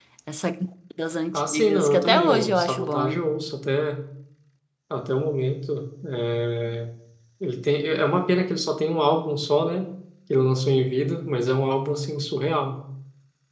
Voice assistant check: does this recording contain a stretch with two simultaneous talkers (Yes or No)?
Yes